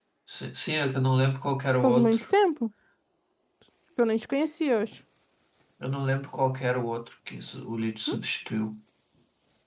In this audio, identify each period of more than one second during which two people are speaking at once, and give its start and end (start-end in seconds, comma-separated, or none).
none